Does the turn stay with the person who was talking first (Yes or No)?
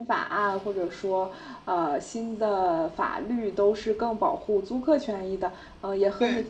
Yes